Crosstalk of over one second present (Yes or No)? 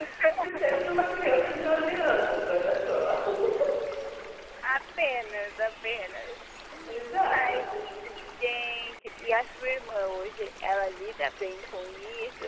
No